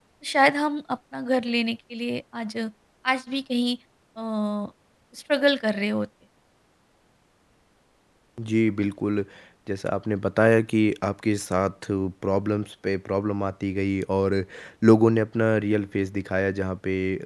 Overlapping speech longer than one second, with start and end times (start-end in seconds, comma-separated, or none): none